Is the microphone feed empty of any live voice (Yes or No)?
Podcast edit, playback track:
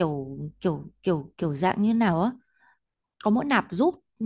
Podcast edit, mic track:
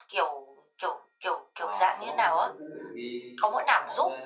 No